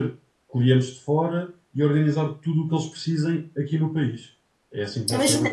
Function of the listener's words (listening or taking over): taking over